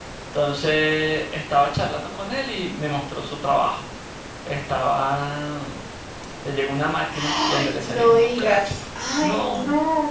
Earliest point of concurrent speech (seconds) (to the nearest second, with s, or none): 7 s